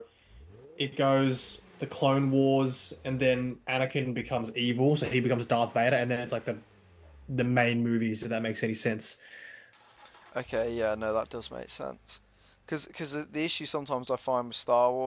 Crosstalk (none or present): none